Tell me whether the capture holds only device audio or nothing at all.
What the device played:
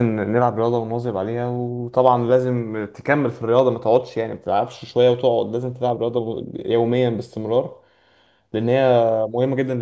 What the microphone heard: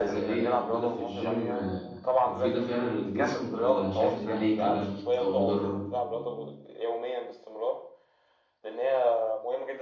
No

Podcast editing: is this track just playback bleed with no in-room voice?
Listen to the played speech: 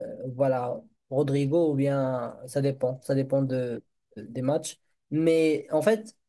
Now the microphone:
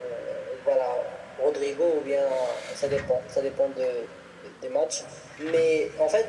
Yes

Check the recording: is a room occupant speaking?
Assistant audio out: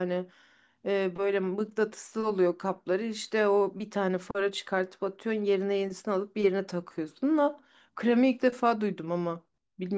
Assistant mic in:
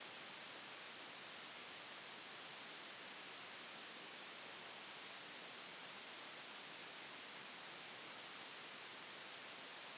No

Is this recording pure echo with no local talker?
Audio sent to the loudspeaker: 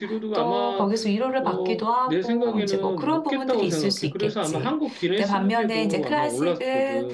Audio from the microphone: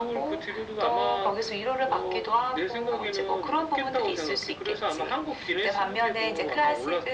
Yes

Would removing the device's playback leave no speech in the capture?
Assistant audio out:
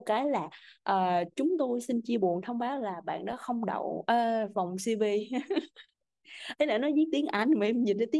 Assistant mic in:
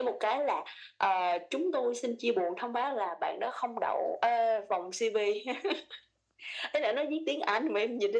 Yes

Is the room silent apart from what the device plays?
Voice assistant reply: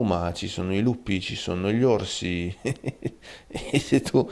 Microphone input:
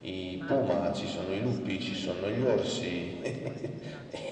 No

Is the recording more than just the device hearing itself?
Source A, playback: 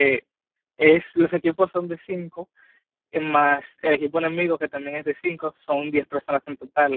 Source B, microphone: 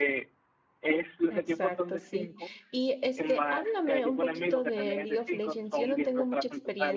Yes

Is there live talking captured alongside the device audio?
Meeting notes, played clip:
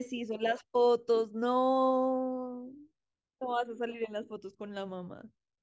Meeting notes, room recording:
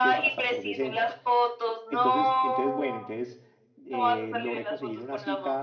Yes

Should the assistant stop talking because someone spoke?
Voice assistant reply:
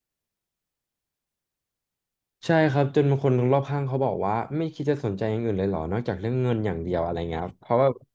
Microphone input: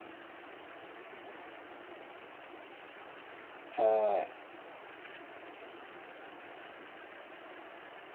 Yes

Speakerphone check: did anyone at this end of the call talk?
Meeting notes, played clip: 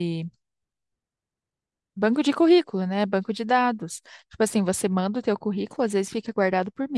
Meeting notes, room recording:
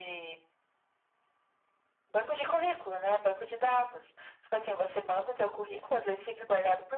No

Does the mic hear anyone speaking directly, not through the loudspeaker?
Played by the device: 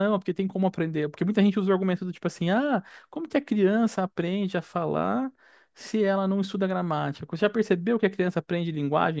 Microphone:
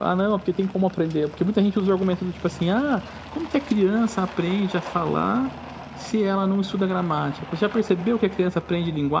No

